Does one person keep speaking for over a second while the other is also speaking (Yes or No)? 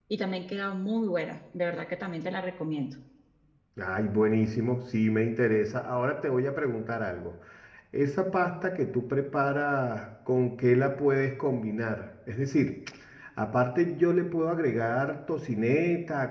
No